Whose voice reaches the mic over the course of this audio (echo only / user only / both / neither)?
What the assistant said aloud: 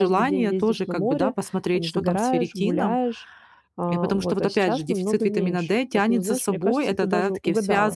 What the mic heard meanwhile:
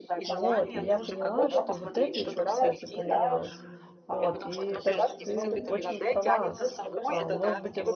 both